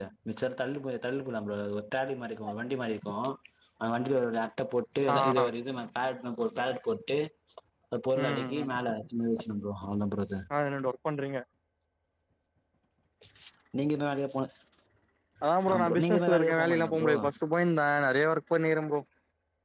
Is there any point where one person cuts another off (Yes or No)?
Yes